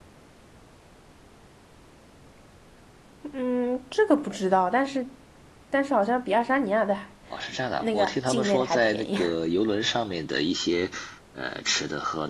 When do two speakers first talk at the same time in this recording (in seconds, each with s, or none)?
7.8 s